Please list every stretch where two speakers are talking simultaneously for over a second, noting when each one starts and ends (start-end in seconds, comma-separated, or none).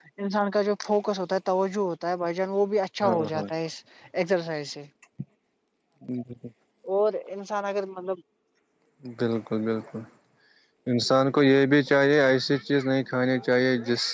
none